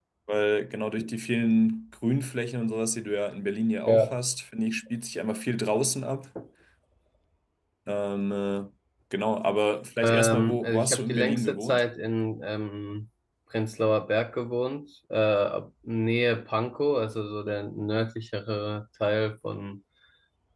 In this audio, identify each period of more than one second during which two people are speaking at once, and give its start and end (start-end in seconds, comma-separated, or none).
10.0-11.8